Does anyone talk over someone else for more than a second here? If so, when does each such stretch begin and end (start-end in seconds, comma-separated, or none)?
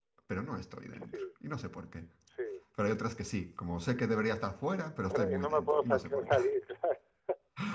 5.1-6.4